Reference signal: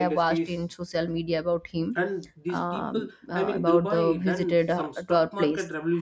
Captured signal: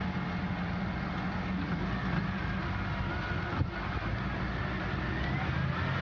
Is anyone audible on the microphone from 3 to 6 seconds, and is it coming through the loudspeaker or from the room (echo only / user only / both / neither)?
neither